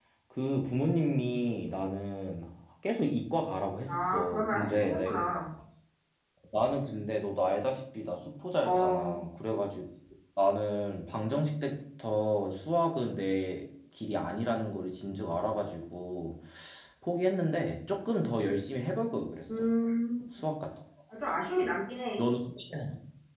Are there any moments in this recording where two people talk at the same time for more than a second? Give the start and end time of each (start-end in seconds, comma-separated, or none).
3.9-5.2